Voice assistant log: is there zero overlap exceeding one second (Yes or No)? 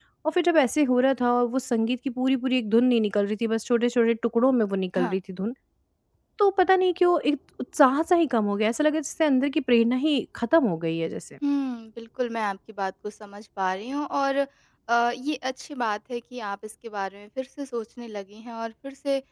Yes